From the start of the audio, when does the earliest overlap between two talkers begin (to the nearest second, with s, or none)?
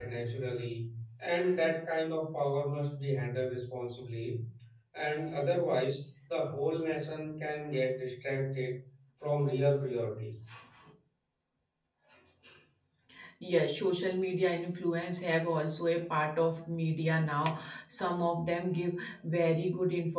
none